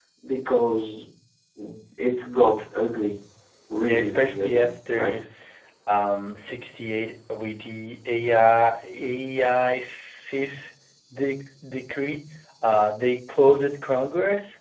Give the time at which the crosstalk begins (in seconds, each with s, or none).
3.8 s